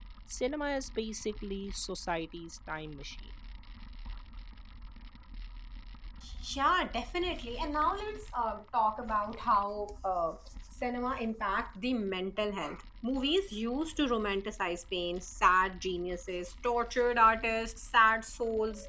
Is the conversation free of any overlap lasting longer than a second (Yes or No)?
Yes